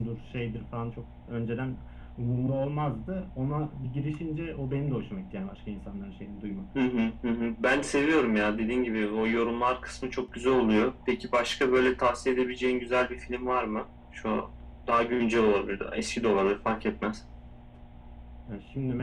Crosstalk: none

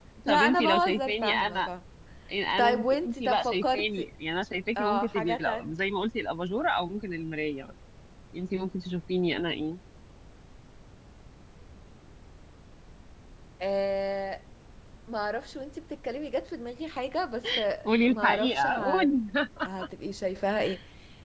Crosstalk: present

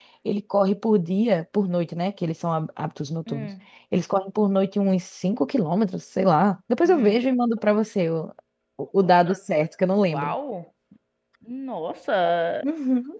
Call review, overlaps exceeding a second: none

